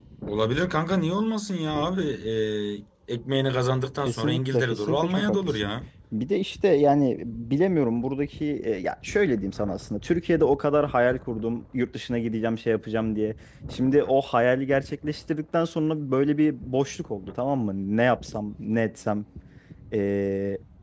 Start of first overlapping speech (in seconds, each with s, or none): 4.0 s